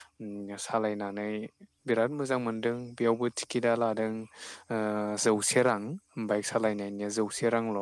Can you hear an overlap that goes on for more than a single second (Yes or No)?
No